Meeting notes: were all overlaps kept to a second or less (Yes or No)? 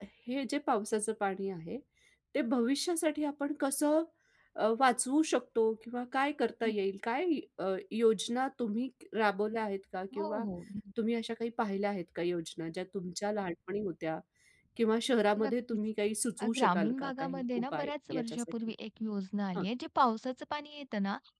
No